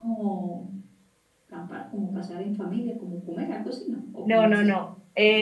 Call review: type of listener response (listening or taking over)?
taking over